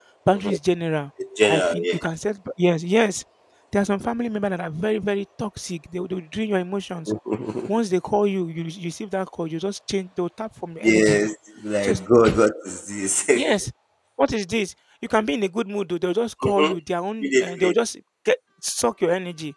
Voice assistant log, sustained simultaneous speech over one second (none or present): none